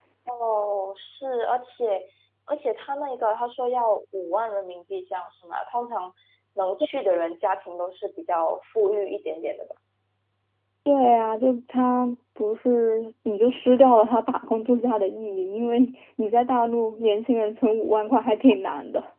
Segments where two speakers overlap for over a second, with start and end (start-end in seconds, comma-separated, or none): none